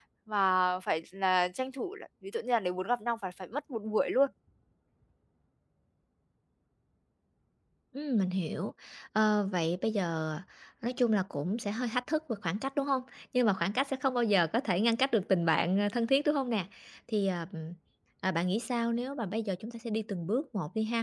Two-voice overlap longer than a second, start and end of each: none

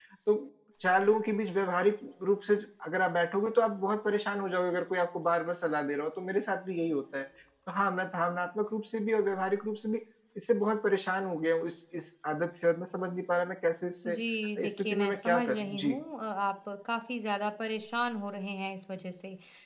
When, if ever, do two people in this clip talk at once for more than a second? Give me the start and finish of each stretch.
14.6-15.9

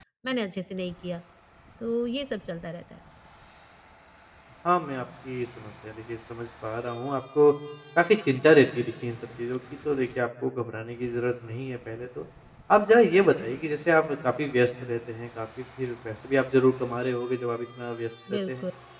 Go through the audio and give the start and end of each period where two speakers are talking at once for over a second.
none

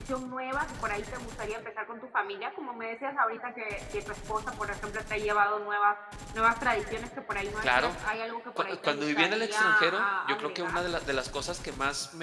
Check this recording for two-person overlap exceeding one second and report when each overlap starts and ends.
8.6-10.7

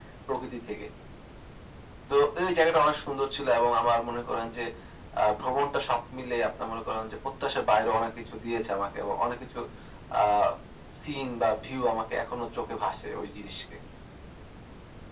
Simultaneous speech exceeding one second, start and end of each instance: none

